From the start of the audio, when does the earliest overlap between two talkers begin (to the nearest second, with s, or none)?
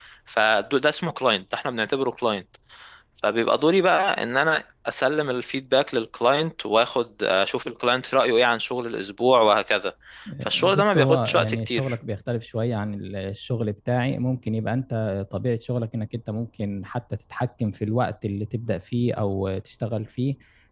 11 s